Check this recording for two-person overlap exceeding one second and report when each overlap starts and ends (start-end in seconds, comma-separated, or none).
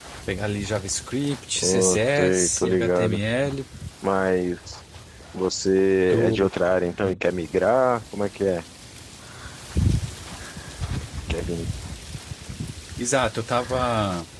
1.6-3.2